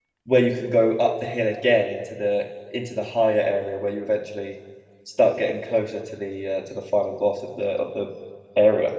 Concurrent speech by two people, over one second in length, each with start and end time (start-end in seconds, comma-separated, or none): none